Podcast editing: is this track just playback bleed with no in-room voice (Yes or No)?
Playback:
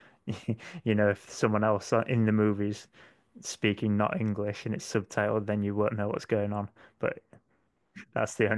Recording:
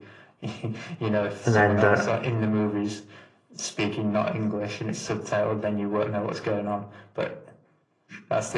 No